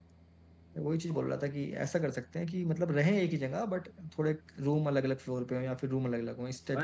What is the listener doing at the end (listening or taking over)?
taking over